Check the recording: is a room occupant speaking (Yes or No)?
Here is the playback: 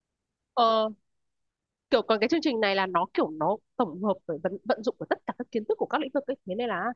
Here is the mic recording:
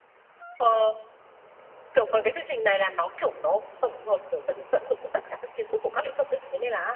No